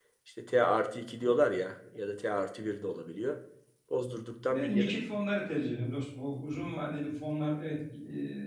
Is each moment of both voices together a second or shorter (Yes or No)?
Yes